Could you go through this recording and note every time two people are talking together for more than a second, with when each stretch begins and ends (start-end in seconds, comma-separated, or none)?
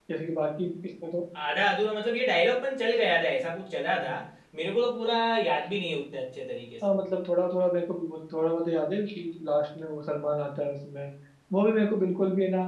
none